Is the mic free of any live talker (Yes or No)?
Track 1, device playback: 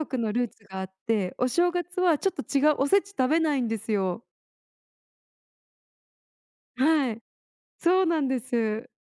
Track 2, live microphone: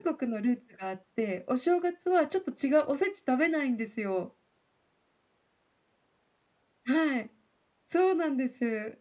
Yes